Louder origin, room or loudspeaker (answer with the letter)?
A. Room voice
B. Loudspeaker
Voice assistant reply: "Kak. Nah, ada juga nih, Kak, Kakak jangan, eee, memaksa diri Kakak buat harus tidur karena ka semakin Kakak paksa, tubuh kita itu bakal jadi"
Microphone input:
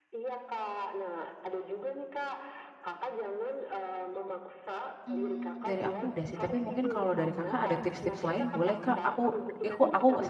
A